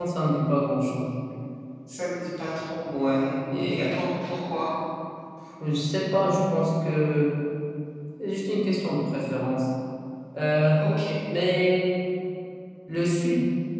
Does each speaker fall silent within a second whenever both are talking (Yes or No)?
Yes